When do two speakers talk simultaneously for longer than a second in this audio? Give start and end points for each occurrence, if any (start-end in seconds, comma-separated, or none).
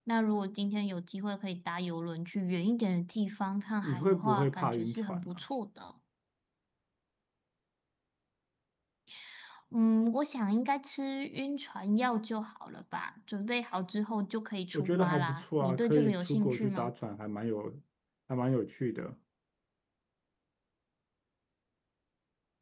3.8-5.4, 14.7-16.9